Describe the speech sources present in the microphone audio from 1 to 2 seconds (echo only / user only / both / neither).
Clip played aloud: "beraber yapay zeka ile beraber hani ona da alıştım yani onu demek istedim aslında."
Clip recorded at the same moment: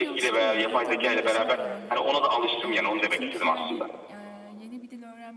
both